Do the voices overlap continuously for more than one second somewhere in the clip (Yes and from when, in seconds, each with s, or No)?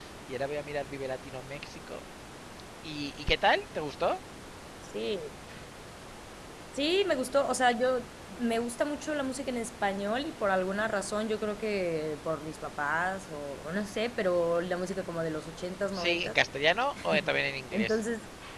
No